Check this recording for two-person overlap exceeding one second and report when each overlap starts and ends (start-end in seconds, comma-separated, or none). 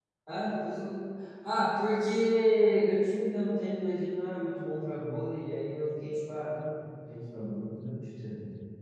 none